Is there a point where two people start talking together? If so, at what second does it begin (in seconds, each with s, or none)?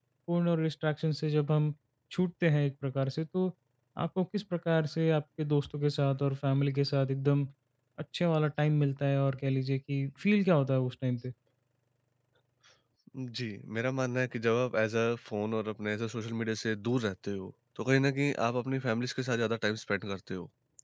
none